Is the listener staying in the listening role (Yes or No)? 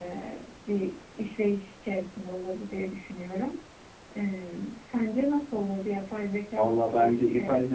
No